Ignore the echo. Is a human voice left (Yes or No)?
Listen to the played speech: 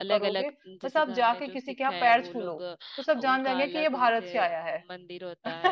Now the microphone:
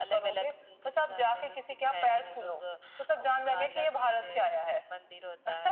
No